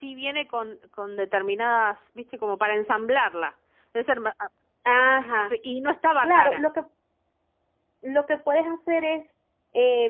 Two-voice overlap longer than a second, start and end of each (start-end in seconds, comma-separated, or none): none